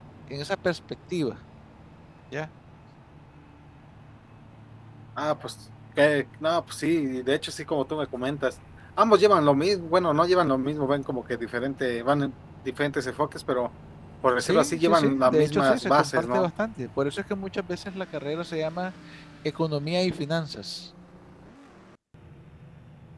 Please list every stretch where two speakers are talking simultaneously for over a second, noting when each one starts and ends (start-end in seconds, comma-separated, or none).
14.4-16.5